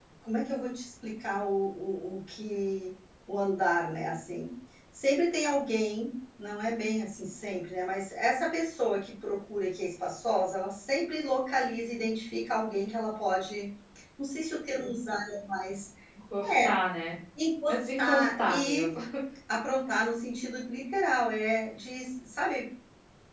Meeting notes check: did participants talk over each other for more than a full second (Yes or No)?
Yes